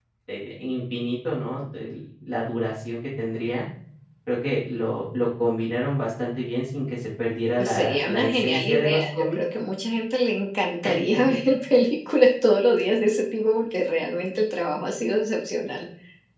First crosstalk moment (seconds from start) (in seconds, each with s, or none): 7.6 s